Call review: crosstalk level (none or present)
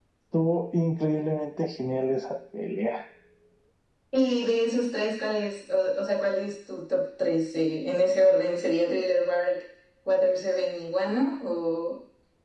none